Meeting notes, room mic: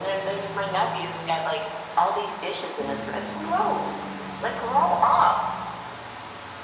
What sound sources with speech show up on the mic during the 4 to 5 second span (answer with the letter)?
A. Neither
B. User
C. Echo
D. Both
C